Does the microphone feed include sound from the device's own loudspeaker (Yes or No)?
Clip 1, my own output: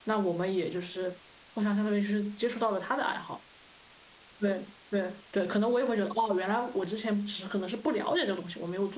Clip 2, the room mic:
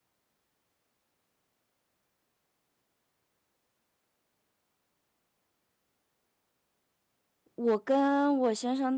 No